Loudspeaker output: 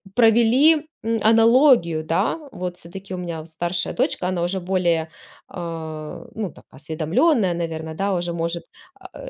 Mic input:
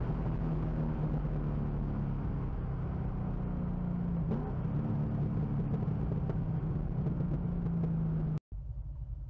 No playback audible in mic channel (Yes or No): Yes